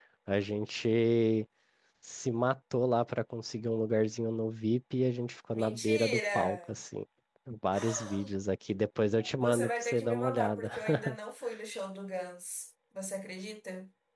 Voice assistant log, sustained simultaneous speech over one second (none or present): present